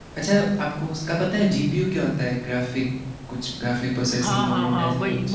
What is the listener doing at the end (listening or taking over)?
taking over